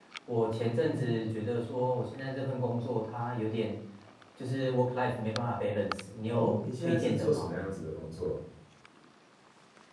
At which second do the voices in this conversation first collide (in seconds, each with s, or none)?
6.3 s